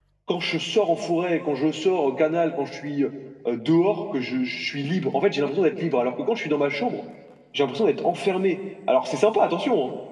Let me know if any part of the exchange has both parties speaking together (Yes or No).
No